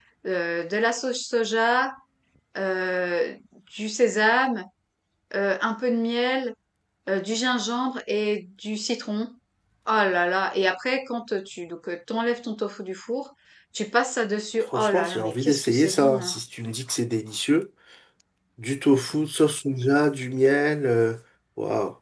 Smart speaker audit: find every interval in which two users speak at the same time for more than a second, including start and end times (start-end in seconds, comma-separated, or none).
14.7-16.4